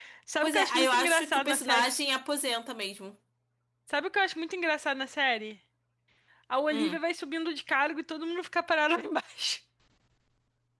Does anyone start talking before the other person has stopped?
Yes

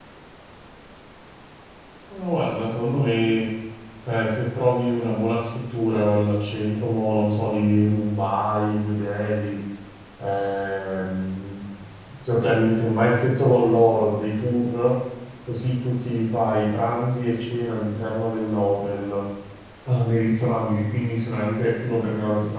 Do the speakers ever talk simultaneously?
No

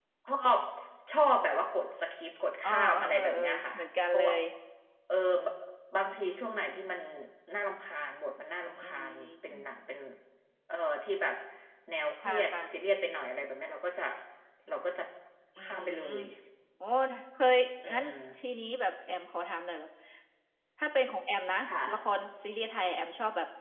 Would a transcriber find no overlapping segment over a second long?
No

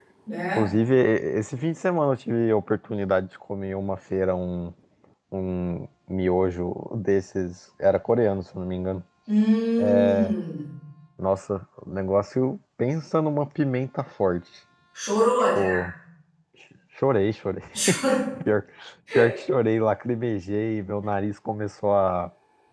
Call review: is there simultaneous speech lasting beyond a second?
No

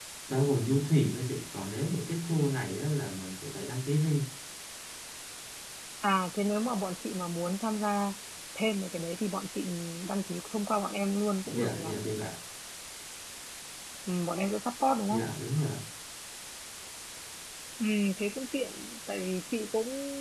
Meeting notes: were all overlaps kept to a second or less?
Yes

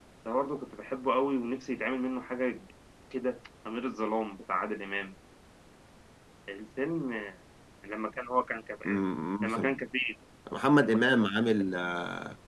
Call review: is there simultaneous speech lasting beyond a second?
No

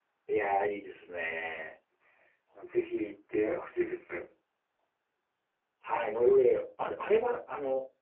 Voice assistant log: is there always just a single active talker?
Yes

